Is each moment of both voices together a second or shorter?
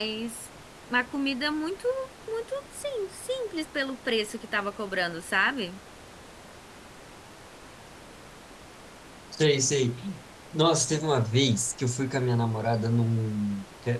Yes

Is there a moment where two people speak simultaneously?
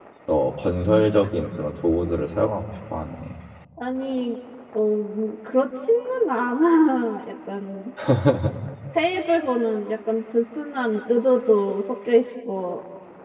No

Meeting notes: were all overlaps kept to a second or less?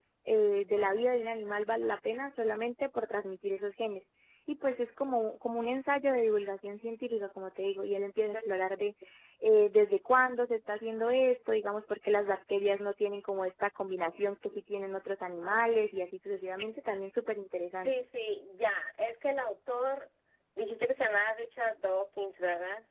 Yes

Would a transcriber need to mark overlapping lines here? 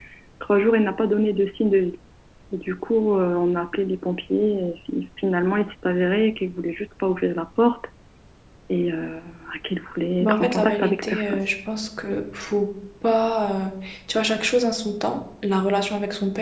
Yes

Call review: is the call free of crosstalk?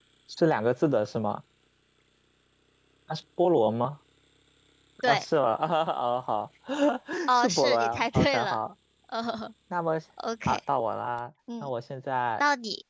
No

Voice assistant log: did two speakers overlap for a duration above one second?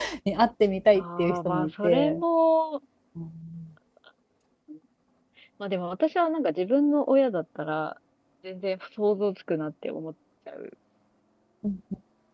Yes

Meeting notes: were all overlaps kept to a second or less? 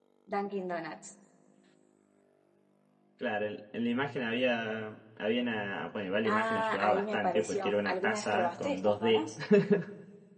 No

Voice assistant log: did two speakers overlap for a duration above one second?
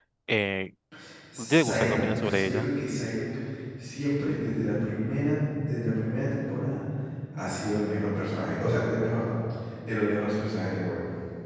Yes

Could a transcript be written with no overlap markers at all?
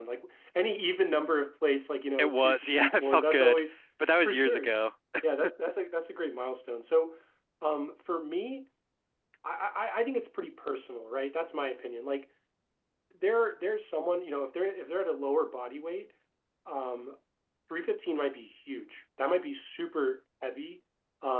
No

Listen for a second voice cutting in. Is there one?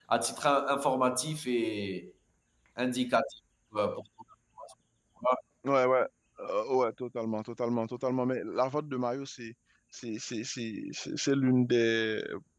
No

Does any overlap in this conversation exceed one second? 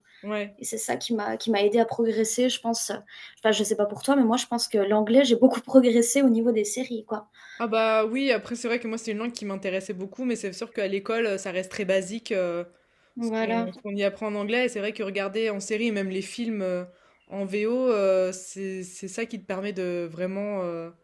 No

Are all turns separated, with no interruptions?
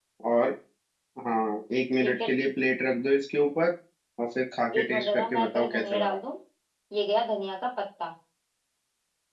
No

